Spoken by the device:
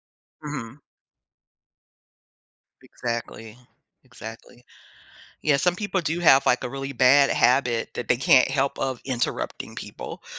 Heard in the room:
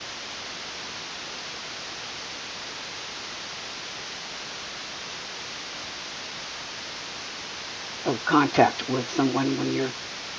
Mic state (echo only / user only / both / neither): user only